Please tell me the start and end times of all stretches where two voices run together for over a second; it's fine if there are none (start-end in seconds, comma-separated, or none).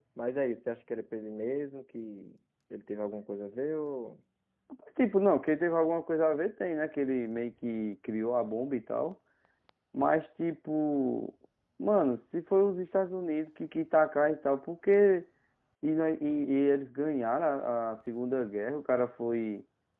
none